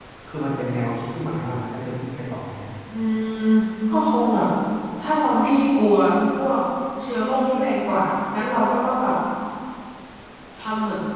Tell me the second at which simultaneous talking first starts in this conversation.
none

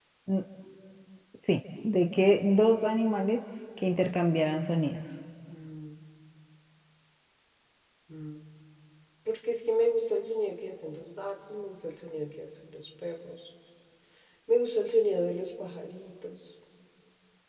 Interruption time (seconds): none

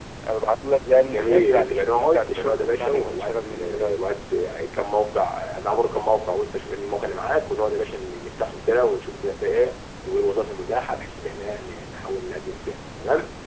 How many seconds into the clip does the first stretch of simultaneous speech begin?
1 s

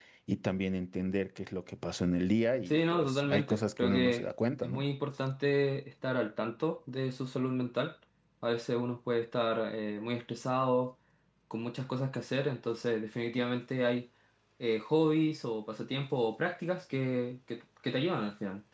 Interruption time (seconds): 3 s

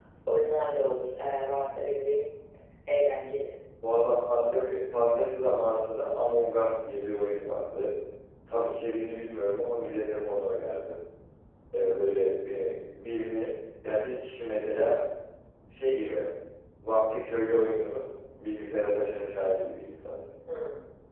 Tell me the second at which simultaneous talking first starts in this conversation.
none

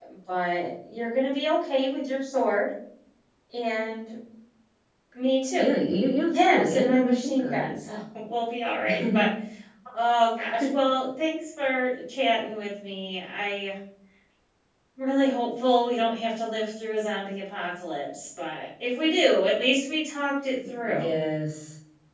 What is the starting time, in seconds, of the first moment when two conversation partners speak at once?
6 s

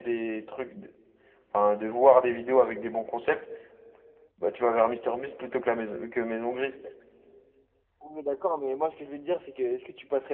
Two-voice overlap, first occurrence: none

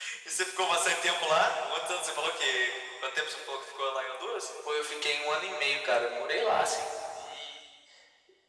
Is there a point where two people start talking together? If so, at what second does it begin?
none

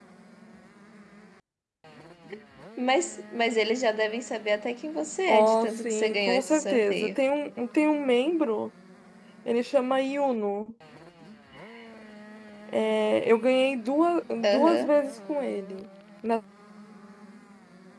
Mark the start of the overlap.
5 s

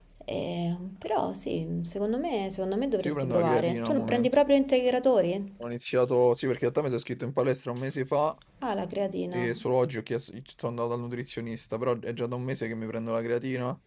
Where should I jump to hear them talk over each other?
3 s

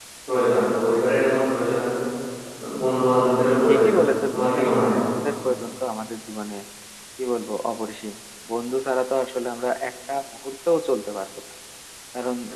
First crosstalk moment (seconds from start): 4 s

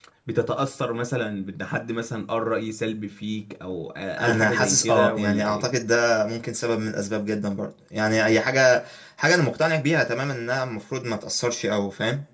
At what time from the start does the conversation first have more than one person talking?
4 s

